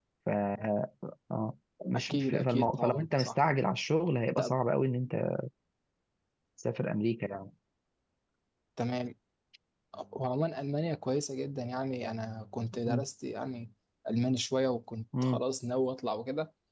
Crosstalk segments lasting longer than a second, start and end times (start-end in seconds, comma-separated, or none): 1.9-3.4